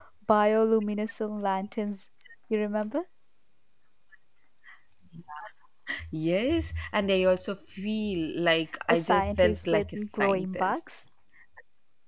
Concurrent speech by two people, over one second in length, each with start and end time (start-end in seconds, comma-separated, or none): 8.9-10.8